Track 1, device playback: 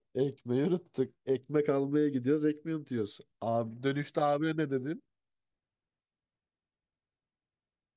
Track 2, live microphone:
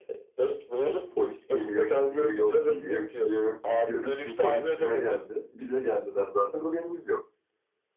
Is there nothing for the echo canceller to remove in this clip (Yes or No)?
No